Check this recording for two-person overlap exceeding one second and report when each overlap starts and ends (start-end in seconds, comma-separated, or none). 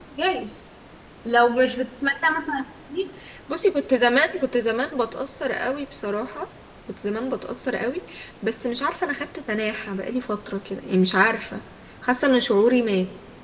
none